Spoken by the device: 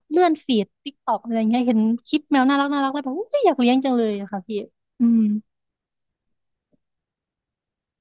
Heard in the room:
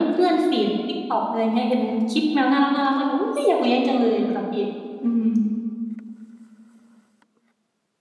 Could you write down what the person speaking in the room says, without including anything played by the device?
none

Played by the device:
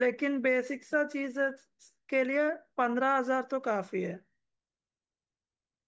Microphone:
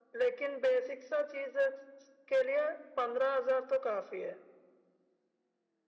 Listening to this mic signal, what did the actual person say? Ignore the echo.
none

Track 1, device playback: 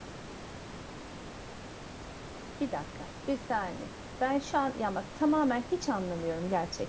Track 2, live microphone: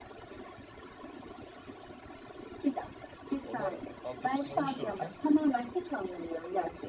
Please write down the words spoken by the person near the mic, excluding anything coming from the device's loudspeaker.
Onlar altyapısını oluştururken

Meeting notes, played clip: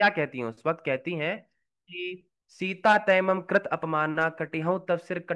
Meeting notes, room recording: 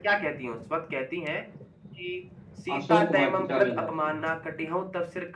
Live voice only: अशोक वाटिका में जाते हैं

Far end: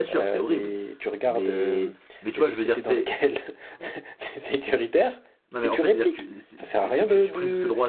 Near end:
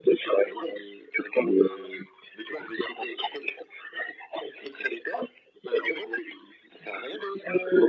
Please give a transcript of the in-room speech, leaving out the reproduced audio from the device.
none

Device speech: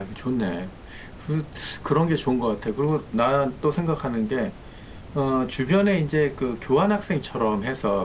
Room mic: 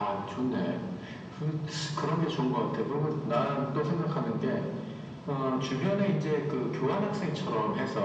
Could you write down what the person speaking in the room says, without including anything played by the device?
none

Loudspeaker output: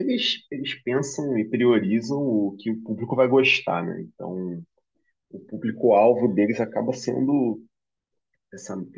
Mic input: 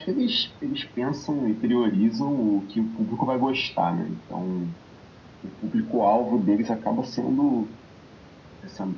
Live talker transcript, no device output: none

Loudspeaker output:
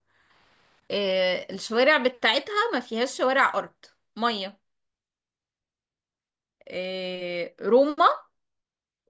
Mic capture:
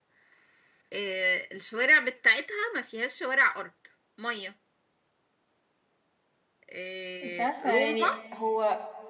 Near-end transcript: مش عارفة يعني هو

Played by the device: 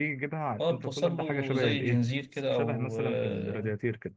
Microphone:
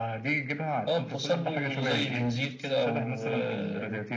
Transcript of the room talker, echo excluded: none

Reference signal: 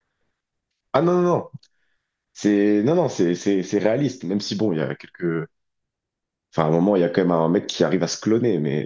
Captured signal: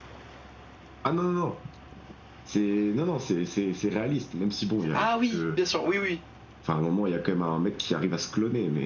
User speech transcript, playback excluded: Ah oui, bien sûr, oui, oui.

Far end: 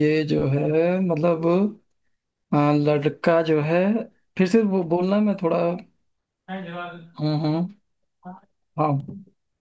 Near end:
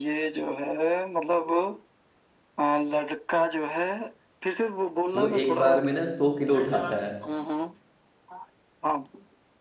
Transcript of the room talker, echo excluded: वो एक बार में ना सौ किलो उठाता है

